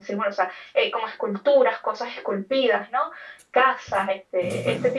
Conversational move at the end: listening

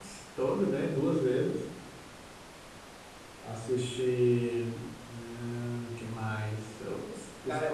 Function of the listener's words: taking over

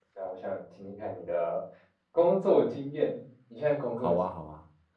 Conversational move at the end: taking over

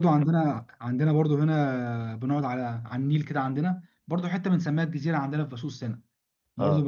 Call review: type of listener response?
listening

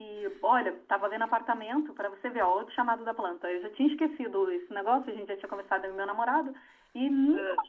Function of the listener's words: listening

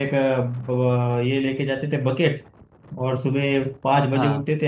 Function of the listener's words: listening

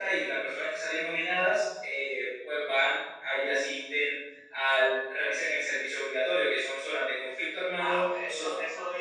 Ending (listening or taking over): taking over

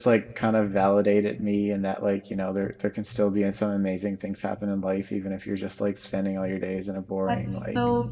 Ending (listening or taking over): taking over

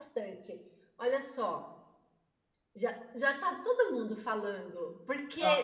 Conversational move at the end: listening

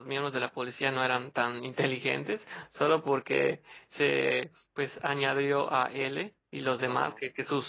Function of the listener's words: listening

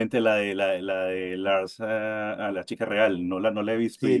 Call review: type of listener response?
taking over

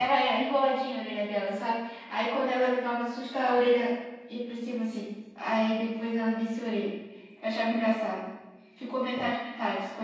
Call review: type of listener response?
listening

